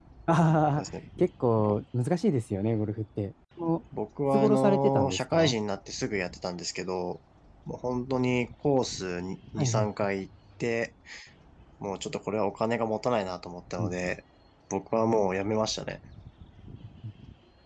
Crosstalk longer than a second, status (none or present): present